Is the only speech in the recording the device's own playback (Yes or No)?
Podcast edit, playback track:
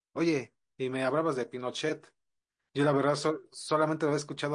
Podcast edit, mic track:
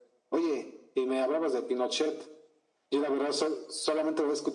Yes